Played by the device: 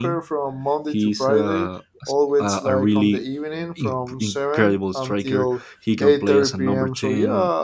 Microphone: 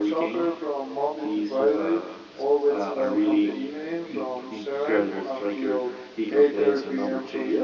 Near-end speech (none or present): none